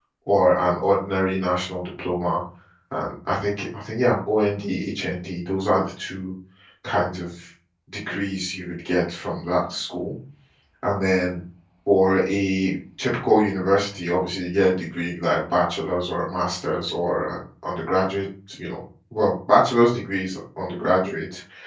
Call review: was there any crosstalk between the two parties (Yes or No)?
No